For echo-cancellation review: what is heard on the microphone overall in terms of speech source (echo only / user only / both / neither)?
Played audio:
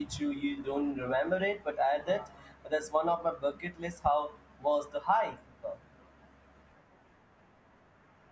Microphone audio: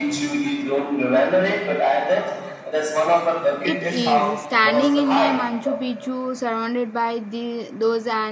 both